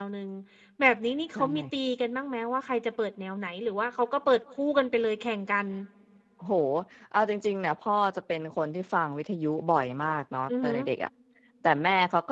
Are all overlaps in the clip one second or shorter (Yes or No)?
Yes